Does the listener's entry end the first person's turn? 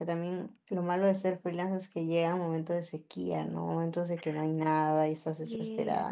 No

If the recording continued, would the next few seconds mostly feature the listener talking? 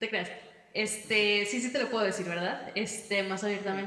No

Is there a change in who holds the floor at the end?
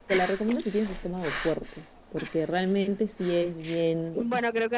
Yes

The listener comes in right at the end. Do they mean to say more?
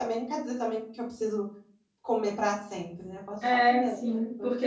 Yes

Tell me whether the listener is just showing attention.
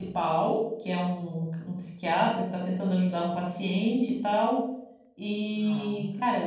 Yes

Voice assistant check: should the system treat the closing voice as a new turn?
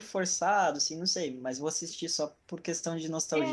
Yes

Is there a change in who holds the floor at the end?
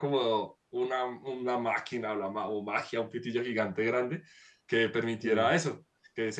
No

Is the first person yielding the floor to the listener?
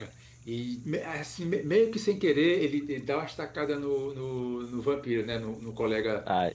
No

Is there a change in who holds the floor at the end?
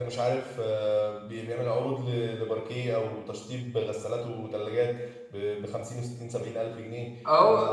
Yes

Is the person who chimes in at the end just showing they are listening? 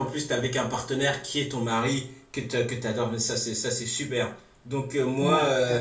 Yes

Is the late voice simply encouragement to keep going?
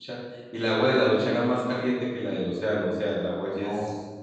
Yes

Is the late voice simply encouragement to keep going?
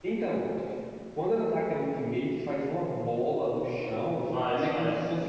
Yes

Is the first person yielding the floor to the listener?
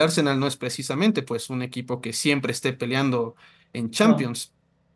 No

